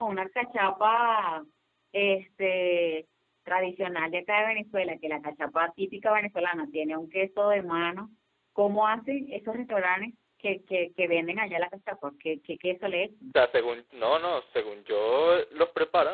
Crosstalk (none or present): none